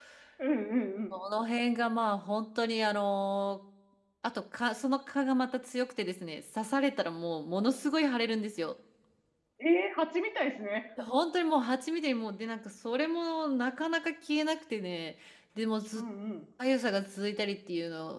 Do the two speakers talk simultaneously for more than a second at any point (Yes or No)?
No